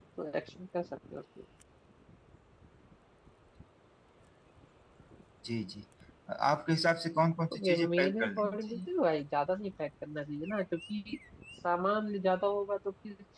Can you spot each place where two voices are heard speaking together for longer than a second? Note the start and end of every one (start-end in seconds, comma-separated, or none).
7.5-8.8